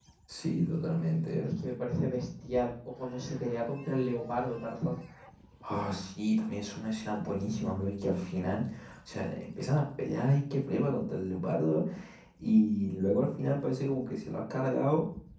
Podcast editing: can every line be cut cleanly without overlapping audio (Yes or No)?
Yes